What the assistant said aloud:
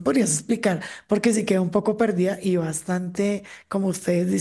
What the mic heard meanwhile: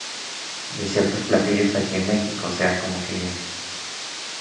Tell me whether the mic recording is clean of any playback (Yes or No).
Yes